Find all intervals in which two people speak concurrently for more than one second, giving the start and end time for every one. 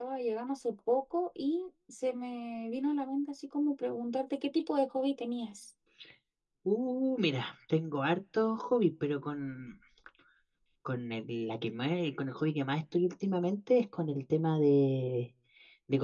none

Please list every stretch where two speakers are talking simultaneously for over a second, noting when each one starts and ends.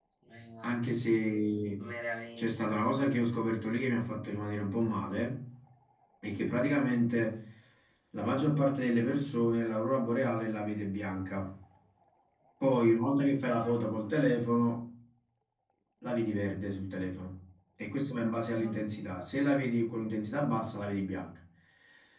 none

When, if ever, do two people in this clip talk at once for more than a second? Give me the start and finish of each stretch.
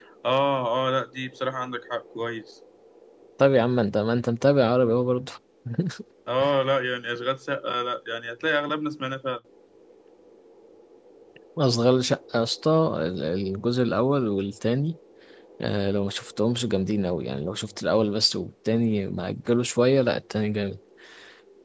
none

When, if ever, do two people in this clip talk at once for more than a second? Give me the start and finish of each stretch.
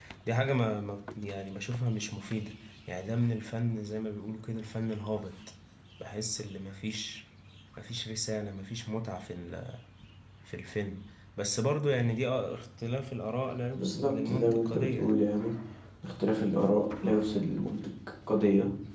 13.8-15.2

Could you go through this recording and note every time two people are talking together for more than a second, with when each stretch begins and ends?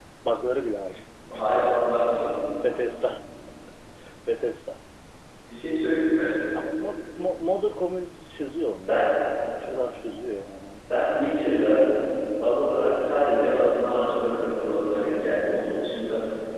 none

